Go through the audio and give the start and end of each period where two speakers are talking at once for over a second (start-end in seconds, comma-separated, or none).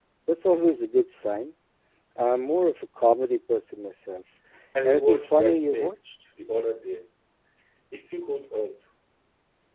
4.8-6.1